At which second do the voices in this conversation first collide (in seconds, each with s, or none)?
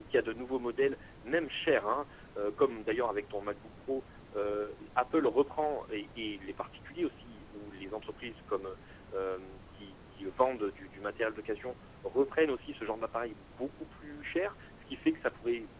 none